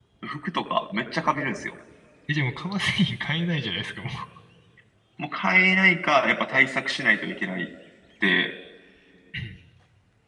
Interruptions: none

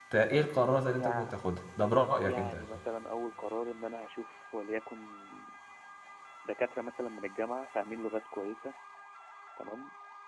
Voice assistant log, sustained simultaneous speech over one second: none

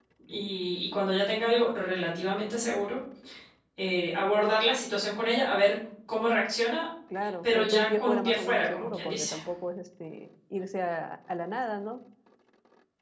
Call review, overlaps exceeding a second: present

